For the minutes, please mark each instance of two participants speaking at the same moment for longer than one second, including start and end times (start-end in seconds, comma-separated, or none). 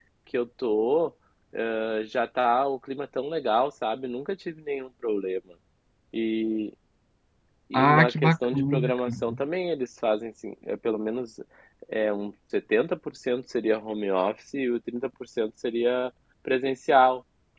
7.7-9.1